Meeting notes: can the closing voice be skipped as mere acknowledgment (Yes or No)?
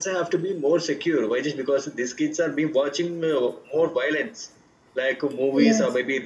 Yes